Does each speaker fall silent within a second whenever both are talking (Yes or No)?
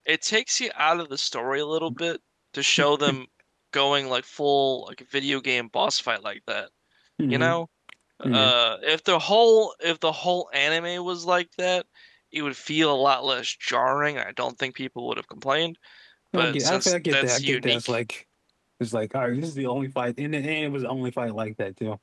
No